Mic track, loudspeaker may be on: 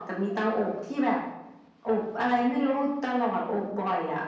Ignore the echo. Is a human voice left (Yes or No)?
No